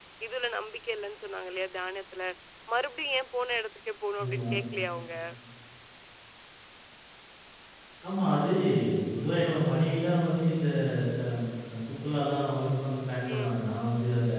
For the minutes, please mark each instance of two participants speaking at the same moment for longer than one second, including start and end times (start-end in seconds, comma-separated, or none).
none